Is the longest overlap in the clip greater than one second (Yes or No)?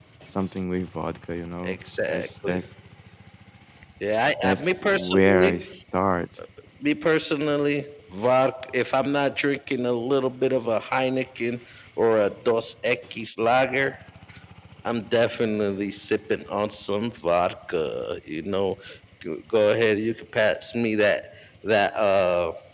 Yes